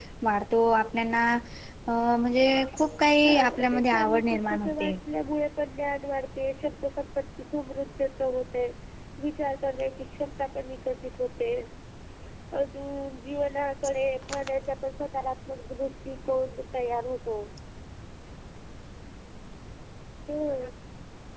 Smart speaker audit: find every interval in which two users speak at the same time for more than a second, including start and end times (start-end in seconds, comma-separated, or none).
3.2-5.0